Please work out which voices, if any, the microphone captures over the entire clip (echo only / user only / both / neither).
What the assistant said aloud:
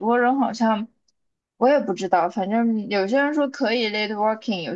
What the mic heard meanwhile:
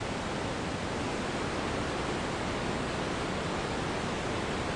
neither